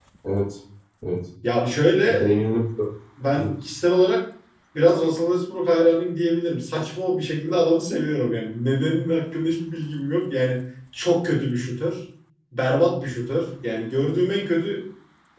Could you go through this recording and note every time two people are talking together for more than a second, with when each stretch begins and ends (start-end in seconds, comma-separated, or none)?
none